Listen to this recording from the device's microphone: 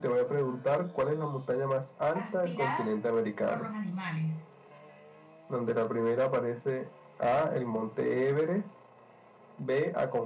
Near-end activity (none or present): present